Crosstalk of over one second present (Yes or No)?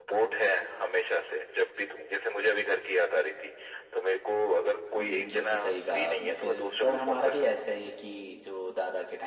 Yes